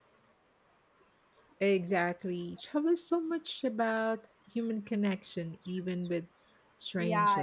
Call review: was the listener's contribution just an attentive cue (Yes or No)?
No